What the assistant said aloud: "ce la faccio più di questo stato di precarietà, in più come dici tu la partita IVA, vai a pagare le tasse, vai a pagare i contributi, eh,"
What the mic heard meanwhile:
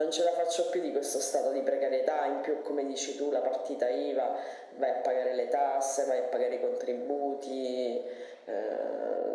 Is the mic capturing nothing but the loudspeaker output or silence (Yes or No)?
Yes